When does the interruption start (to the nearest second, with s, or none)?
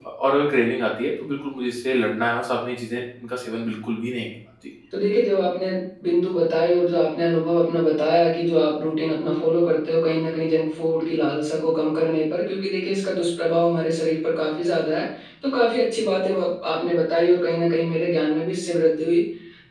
none